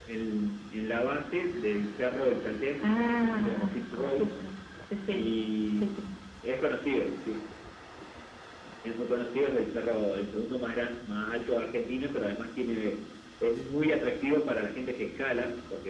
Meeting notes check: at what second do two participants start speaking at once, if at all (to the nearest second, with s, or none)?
3 s